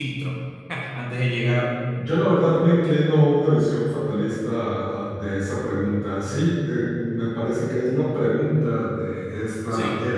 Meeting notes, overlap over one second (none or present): none